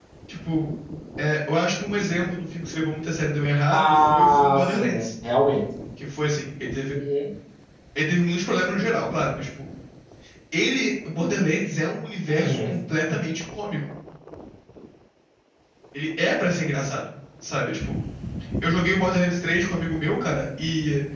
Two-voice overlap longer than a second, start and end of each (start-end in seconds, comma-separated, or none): 3.7-5.1